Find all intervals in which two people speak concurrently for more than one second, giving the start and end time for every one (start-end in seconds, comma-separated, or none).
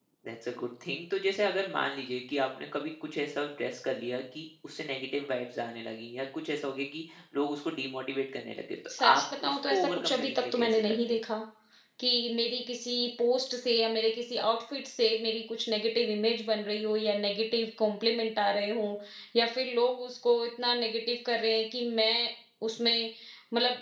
9.0-11.2